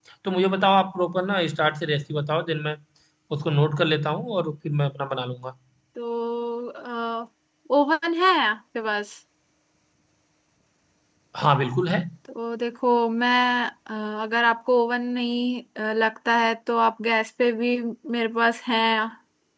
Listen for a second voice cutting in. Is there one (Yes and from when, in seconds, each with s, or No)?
No